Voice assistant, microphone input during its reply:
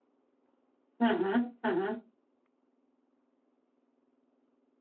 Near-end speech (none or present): present